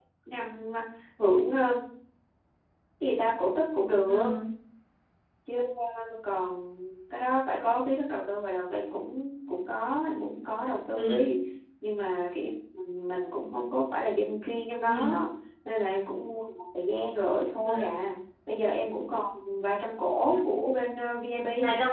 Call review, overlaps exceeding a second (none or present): none